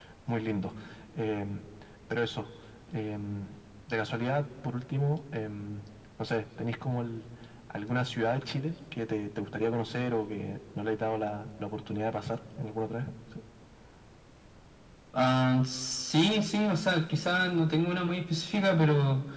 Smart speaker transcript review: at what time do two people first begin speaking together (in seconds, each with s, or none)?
none